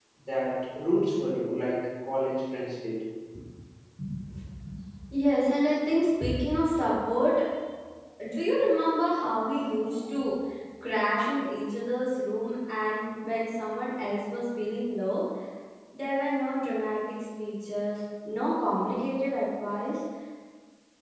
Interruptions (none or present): none